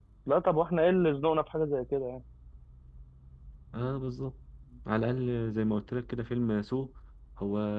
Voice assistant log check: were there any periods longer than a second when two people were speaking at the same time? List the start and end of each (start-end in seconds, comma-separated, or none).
none